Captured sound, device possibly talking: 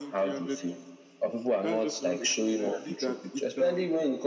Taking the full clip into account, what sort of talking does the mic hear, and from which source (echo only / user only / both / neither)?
echo only